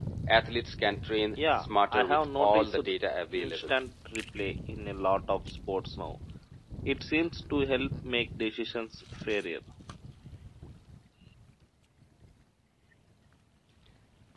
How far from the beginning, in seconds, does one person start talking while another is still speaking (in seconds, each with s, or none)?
1.6 s